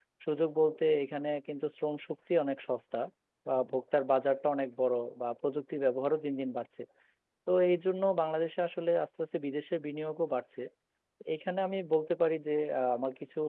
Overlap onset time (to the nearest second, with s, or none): none